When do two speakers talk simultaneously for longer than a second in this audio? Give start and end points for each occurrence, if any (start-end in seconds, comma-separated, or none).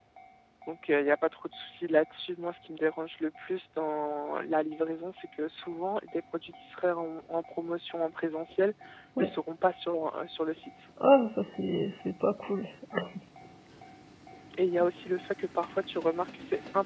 none